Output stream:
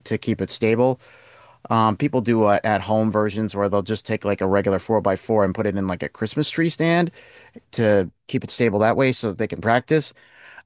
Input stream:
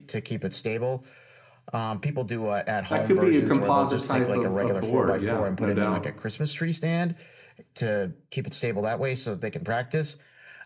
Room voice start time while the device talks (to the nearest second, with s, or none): 3 s